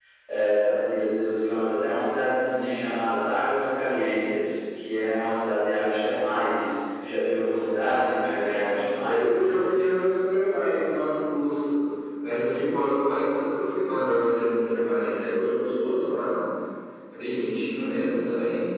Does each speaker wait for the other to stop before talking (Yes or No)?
No